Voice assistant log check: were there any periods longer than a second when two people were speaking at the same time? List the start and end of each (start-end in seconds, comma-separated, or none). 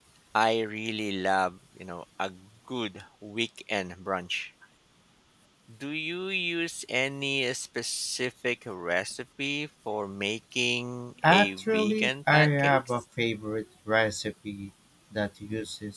11.2-12.8